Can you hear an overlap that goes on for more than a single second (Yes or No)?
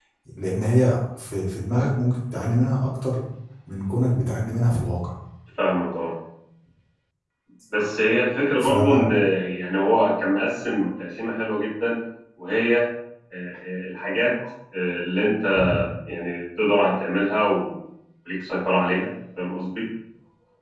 No